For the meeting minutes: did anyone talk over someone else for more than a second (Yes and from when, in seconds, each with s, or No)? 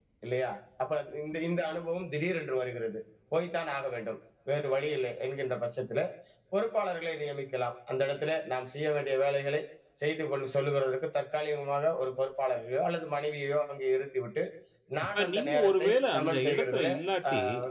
Yes, from 15.2 s